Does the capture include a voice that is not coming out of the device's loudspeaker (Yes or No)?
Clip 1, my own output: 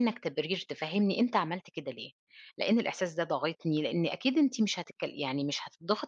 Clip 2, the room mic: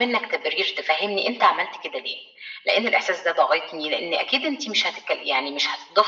No